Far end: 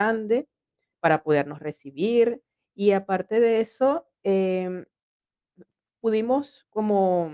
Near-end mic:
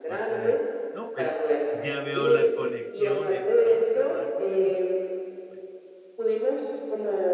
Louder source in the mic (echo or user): echo